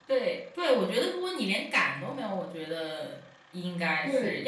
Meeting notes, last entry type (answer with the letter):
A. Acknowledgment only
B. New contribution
A